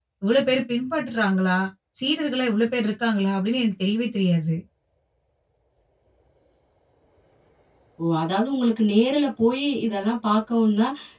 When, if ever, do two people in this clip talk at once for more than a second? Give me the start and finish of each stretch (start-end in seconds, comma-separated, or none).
none